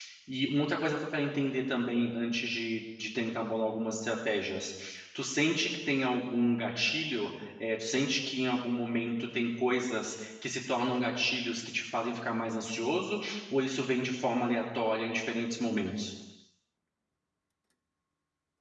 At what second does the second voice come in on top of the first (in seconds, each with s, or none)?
none